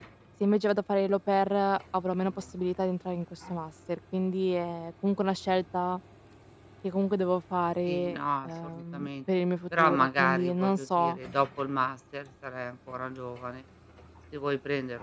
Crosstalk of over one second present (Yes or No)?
Yes